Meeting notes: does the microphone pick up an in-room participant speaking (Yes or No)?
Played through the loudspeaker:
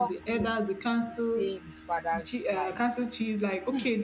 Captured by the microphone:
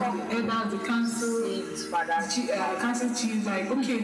No